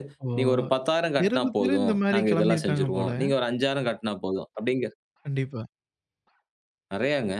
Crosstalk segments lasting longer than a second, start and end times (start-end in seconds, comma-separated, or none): 1.2-3.1